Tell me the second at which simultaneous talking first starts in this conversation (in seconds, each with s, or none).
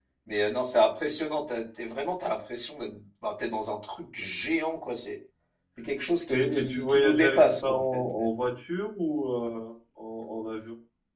6.3 s